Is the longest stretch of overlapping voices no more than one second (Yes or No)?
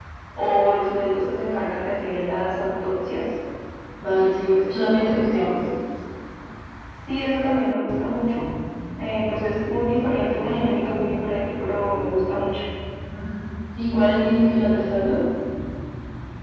No